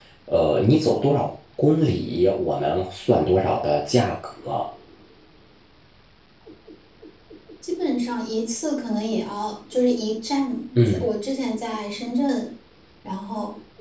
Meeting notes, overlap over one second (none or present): none